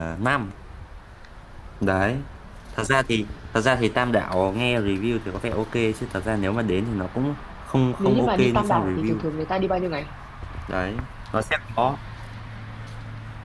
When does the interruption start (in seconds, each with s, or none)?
8.0 s